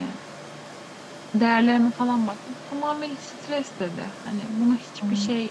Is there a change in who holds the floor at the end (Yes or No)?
No